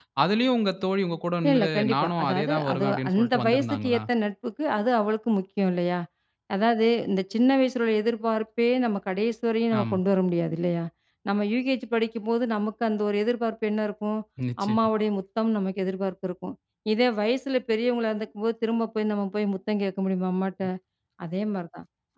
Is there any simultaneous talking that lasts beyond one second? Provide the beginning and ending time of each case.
1.5-4.0

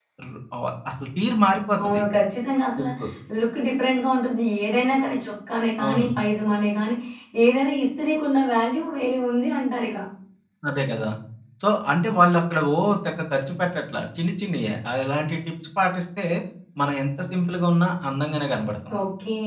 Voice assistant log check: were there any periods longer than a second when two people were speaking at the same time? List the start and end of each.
none

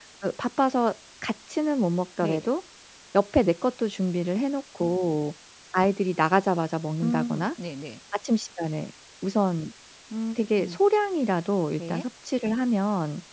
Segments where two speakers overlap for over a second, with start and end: none

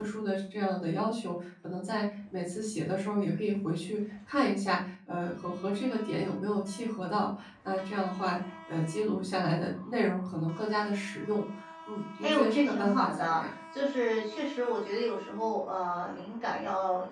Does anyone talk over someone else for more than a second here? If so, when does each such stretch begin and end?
12.2-13.4

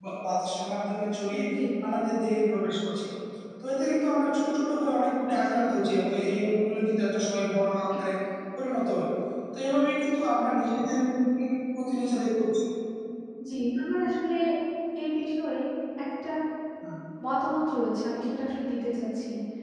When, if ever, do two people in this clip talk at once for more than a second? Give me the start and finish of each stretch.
none

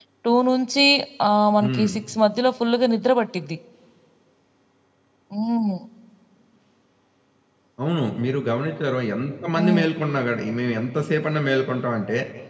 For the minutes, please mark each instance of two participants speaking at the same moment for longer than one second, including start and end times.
none

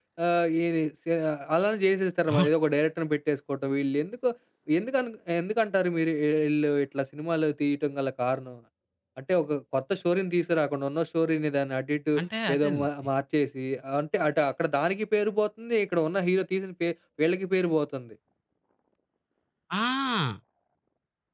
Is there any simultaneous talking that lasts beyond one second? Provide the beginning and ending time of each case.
none

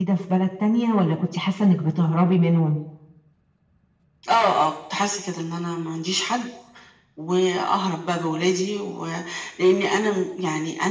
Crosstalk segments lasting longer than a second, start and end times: none

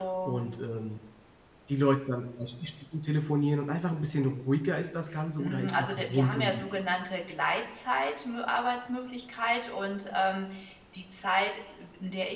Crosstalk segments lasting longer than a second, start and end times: 5.4-6.8

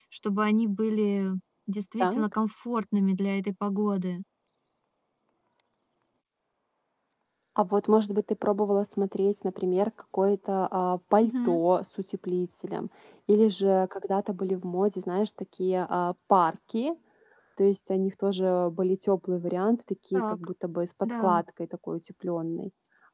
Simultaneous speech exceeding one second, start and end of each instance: none

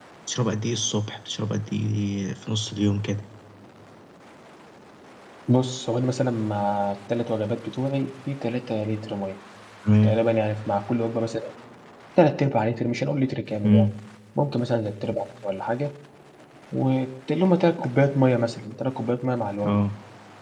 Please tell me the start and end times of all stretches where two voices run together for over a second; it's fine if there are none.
none

